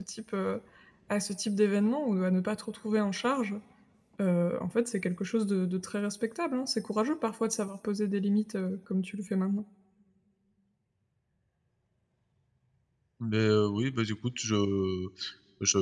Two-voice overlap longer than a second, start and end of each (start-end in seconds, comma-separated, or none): none